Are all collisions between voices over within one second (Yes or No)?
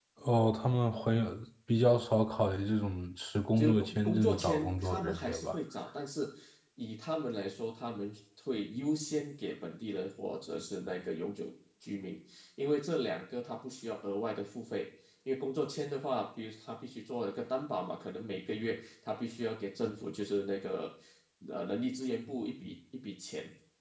No